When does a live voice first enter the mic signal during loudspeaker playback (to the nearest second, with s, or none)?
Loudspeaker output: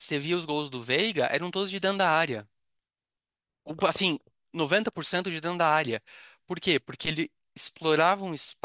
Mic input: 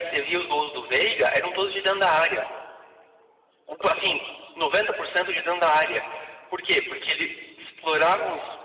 none